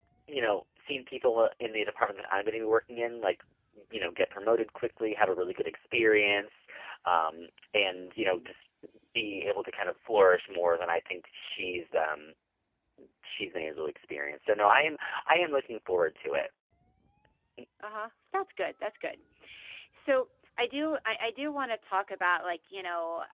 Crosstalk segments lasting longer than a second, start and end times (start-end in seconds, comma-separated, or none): none